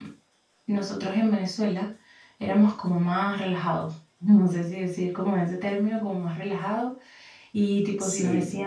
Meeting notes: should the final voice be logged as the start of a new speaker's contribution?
No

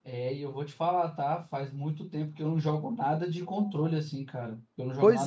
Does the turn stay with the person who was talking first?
No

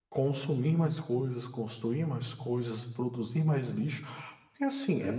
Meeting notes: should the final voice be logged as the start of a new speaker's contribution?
No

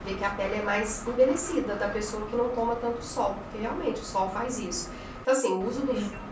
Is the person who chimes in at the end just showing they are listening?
Yes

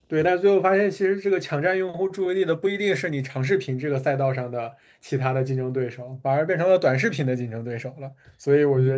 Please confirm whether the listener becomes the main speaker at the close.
No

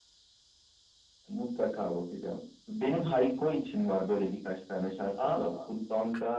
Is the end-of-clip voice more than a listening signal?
No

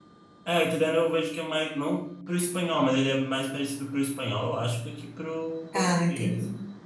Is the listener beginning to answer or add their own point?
No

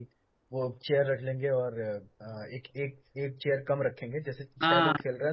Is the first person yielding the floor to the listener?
No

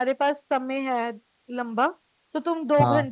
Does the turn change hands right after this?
No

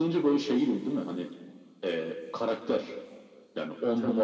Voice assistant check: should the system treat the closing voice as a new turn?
No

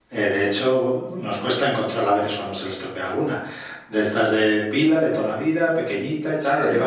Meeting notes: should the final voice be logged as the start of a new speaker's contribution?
No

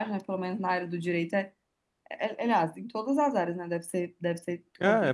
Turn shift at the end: Yes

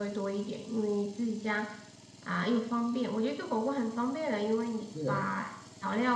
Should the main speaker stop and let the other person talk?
No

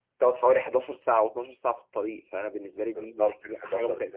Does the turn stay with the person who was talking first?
No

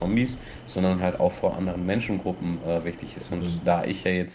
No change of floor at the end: Yes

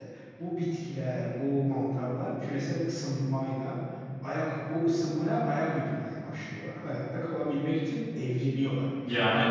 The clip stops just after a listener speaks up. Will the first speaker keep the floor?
Yes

